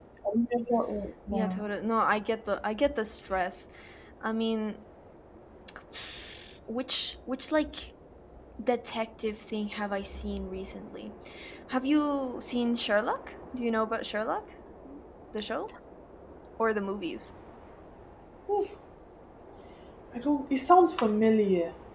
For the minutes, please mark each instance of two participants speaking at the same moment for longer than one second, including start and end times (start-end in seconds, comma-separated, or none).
none